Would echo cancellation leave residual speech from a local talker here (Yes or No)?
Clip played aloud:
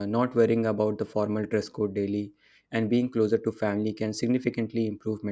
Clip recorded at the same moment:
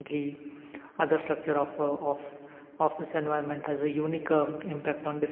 Yes